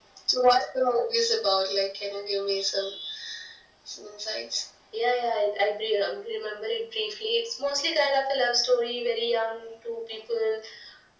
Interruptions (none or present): none